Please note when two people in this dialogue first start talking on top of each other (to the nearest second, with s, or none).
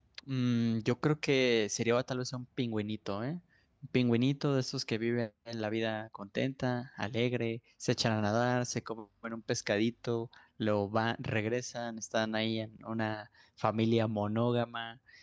none